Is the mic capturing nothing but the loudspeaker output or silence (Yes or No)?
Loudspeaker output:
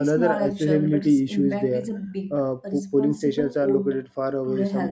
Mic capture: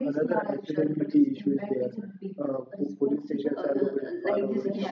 No